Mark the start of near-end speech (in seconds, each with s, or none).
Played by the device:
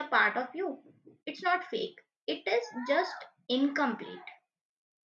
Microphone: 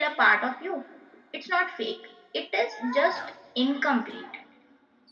none